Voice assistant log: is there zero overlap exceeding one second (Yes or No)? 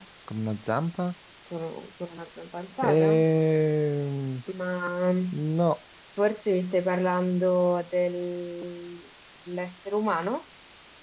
Yes